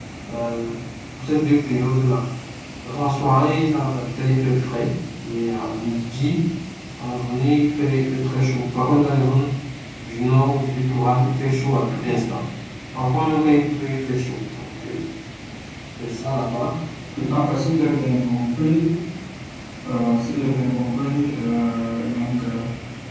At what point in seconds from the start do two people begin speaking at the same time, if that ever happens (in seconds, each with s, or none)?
none